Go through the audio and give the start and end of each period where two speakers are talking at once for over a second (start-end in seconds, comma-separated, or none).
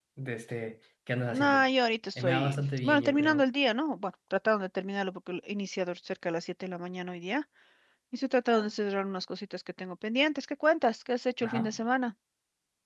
2.2-3.4